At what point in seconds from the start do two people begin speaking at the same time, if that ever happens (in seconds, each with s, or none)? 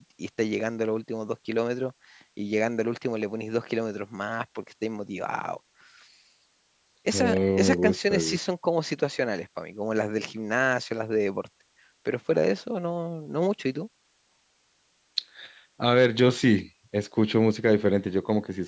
7.1 s